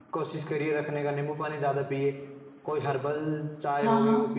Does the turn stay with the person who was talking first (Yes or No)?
Yes